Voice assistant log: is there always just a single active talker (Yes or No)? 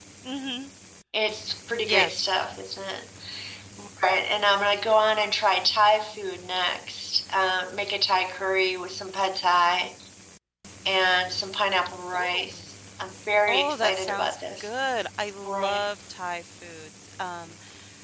No